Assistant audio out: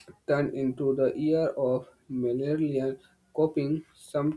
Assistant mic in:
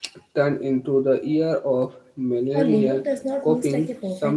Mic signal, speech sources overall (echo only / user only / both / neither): both